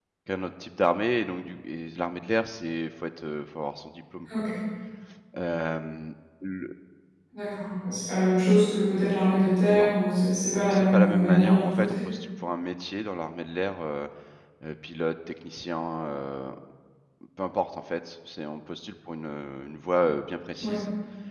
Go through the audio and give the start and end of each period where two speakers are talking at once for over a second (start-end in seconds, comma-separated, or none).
10.7-12.0